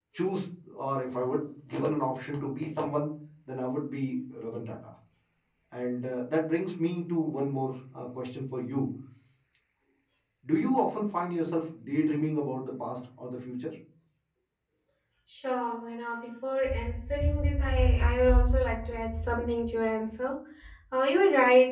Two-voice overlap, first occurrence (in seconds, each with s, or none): none